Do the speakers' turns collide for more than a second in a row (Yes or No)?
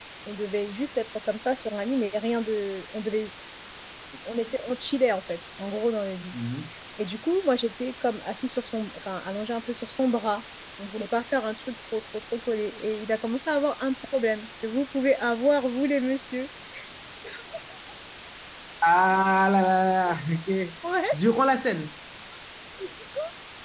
No